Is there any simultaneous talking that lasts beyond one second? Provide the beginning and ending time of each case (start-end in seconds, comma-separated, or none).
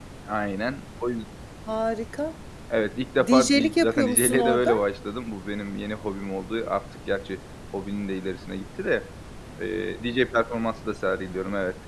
3.3-4.7